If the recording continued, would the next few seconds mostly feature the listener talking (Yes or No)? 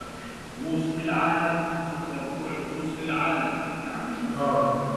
No